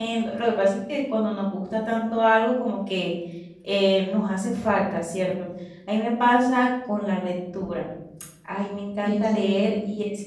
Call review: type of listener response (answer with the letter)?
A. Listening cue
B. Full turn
A